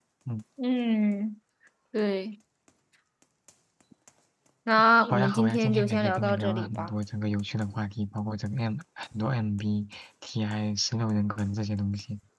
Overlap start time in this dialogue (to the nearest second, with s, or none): 5 s